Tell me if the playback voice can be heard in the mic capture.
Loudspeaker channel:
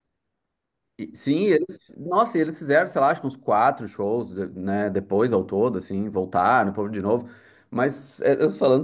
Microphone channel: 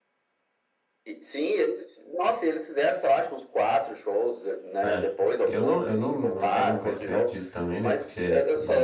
Yes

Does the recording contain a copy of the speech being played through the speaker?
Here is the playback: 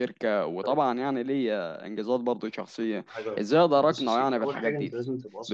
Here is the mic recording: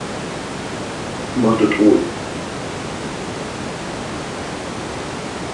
No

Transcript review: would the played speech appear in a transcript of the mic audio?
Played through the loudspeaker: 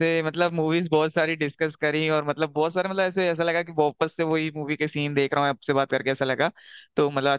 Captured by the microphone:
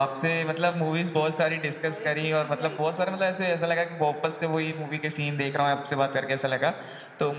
Yes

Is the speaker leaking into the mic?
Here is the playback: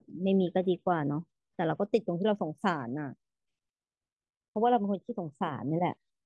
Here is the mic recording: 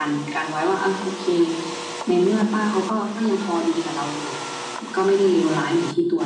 No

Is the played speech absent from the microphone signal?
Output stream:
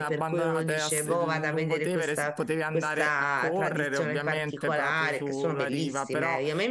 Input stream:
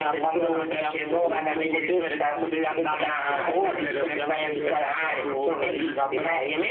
No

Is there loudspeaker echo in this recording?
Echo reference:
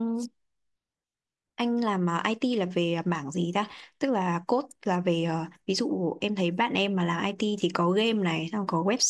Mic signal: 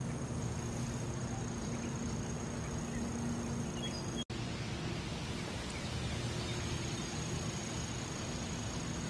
No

